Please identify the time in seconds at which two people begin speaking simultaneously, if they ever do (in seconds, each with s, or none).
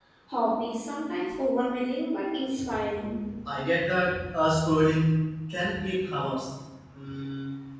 none